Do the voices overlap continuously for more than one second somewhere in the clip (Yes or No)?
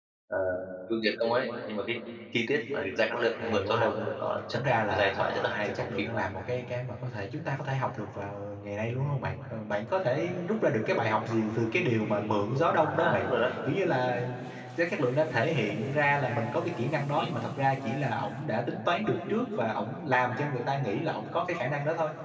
Yes